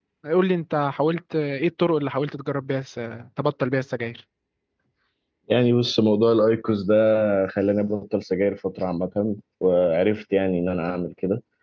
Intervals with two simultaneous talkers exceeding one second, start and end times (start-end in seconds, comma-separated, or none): none